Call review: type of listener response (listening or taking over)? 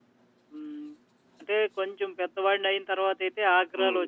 listening